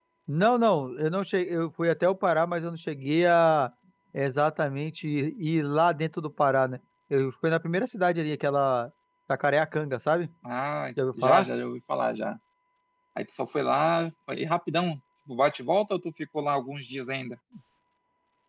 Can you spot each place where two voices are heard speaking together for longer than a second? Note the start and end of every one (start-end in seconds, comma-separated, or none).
none